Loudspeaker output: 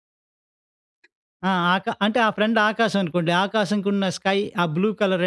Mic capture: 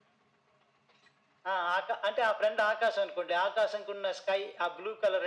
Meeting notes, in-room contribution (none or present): none